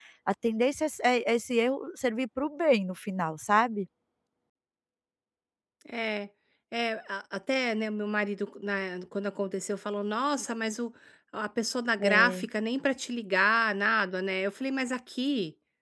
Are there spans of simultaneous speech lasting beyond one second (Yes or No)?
No